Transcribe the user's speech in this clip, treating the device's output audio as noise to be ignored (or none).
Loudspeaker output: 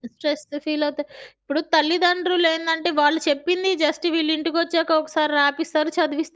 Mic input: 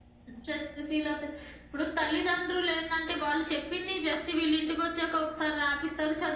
none